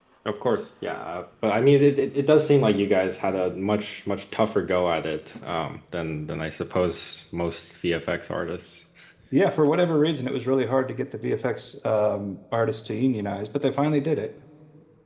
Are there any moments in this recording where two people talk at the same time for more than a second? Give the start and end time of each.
none

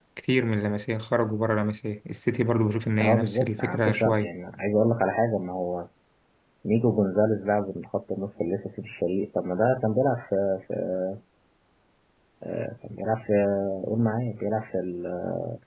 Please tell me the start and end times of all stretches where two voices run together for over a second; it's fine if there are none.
3.0-4.3

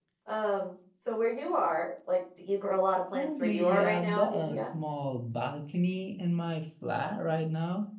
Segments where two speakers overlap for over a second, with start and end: 3.1-4.7

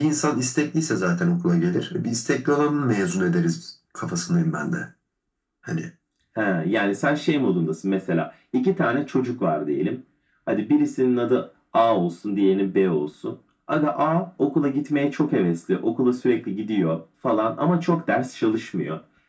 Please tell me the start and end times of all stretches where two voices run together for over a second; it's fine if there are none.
none

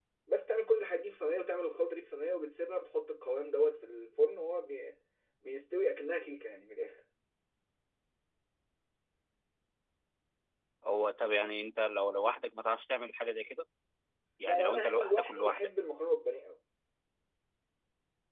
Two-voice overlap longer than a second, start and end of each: 14.4-15.7

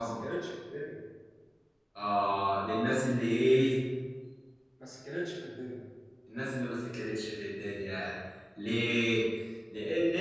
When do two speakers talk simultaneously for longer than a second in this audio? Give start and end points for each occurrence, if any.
none

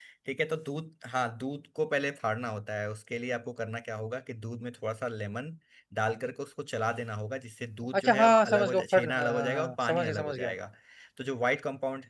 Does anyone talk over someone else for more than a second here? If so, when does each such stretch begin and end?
8.0-10.5

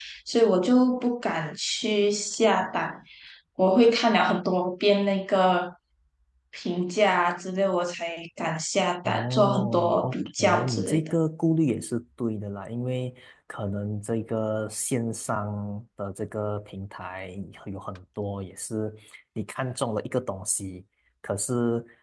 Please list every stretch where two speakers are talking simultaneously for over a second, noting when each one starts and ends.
9.0-11.1

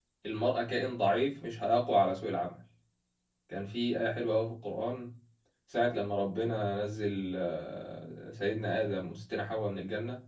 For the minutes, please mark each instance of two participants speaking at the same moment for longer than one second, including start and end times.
none

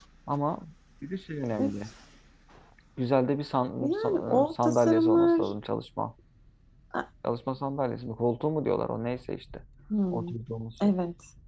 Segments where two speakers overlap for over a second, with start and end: 3.8-5.5

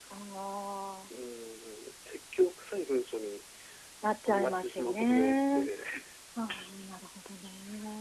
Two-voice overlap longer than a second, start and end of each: 4.3-5.7

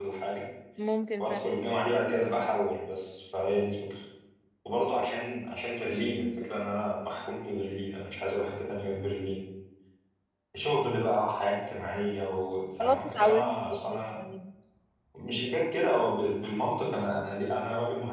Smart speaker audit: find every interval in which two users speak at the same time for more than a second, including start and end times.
12.8-14.0

